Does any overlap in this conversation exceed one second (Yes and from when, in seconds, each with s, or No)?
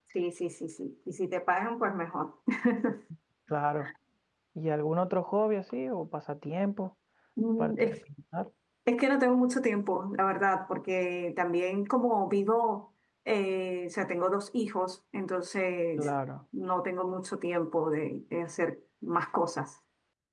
No